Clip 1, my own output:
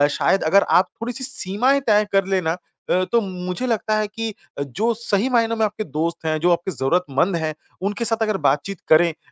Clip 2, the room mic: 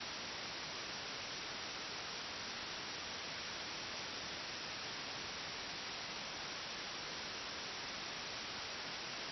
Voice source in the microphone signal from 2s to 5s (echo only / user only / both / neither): neither